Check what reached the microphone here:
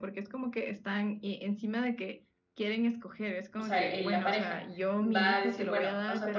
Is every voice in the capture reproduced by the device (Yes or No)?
No